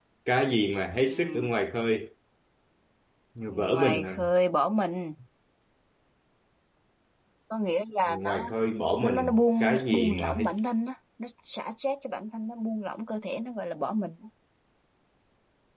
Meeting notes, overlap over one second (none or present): present